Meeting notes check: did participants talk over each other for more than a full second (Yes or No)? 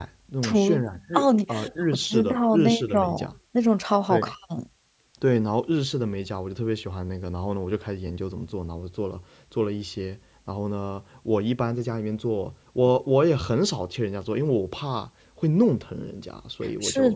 Yes